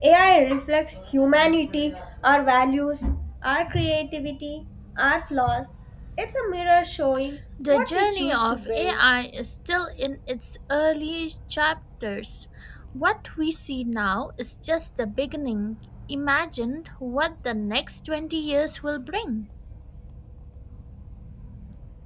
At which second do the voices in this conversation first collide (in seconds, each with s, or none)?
7.6 s